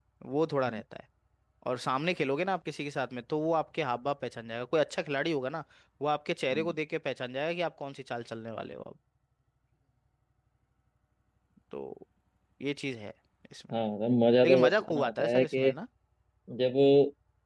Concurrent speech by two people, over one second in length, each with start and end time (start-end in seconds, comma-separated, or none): 14.4-15.7